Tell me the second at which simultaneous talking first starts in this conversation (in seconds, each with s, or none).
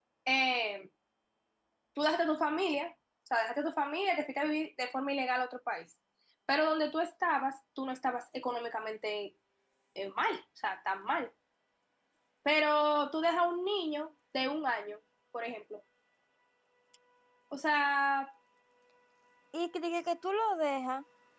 none